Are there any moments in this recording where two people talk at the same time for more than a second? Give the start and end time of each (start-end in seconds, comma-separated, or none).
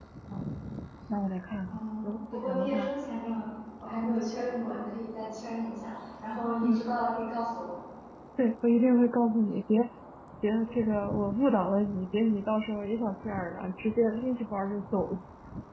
1.7-2.9